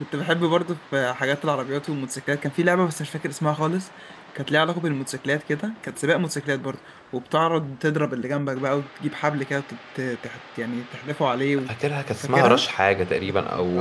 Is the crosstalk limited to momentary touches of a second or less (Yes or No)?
Yes